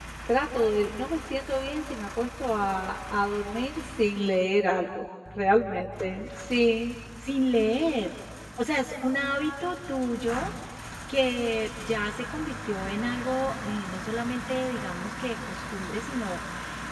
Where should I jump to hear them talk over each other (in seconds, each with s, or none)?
none